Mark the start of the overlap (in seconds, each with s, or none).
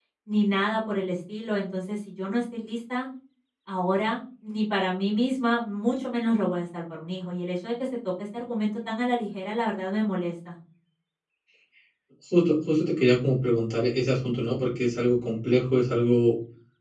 none